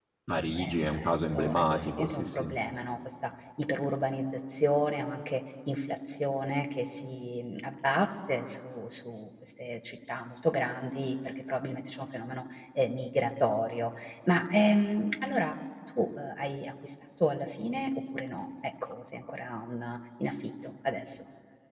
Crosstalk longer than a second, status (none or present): present